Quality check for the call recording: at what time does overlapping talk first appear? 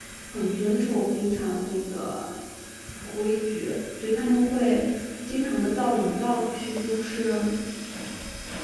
none

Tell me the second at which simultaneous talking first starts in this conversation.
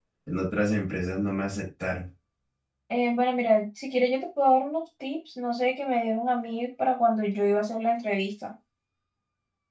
none

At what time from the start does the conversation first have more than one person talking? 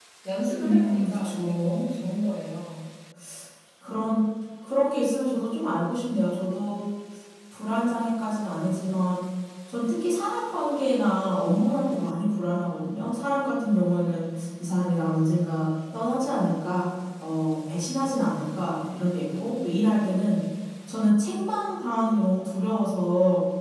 1 s

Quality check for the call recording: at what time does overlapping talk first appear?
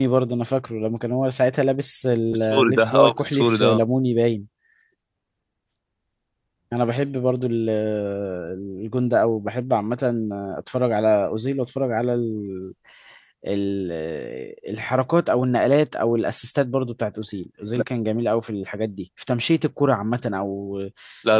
2 s

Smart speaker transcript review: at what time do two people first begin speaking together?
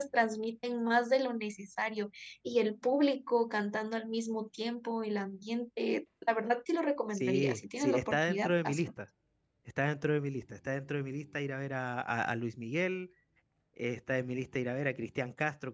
7 s

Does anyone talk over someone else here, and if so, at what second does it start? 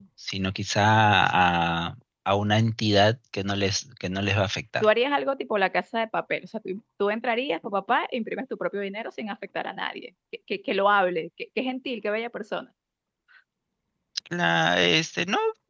none

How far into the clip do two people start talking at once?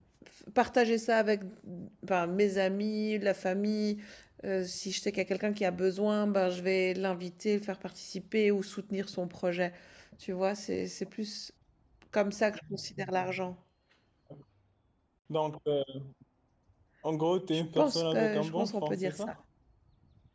18 s

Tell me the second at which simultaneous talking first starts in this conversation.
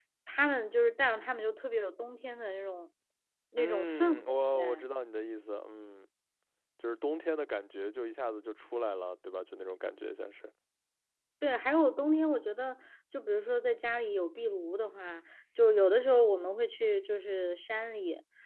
4 s

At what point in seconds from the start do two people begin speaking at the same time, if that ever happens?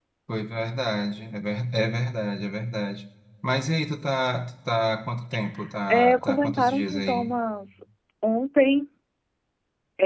6 s

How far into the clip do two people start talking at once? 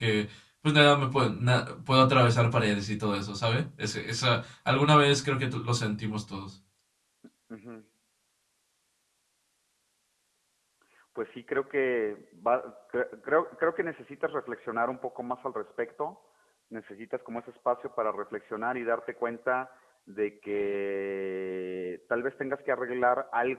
none

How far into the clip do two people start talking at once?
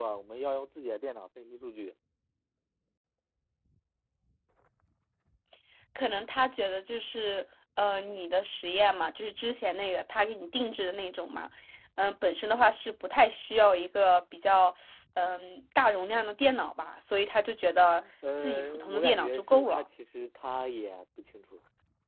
18 s

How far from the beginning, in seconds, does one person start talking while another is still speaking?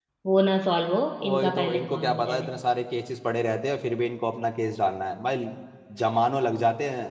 1 s

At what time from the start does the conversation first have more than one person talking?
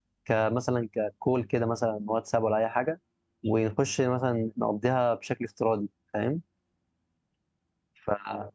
none

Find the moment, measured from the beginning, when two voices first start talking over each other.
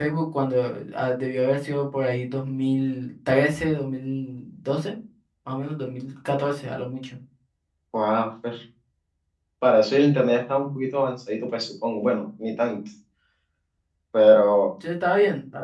none

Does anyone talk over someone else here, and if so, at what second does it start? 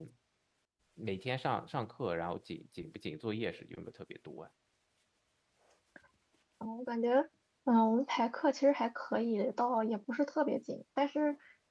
none

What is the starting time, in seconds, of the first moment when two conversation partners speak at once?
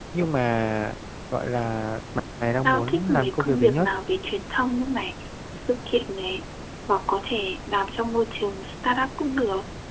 3 s

